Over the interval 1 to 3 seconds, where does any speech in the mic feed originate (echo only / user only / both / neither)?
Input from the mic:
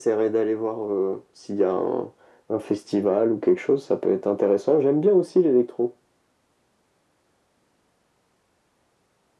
echo only